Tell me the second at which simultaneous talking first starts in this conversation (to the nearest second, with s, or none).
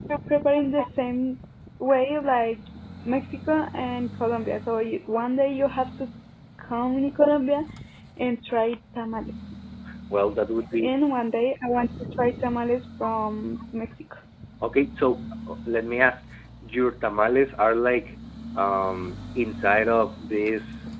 none